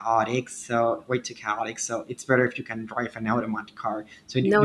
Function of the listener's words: listening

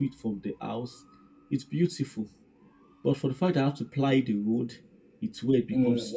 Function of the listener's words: taking over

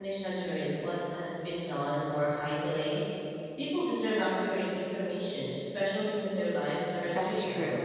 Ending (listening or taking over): taking over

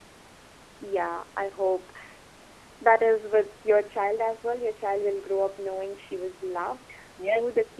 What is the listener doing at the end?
taking over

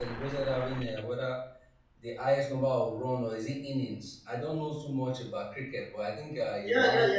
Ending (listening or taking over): taking over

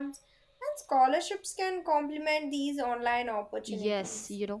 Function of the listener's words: taking over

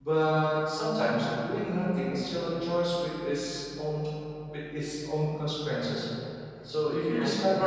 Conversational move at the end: taking over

